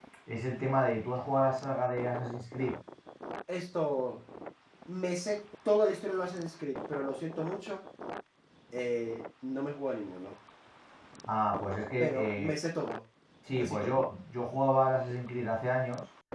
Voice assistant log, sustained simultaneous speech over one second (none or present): none